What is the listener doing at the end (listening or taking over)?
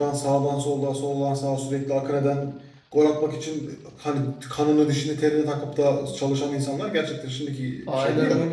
taking over